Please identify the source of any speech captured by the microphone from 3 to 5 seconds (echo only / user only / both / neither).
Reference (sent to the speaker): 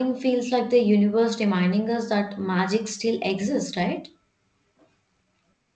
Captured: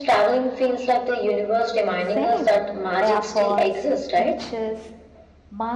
both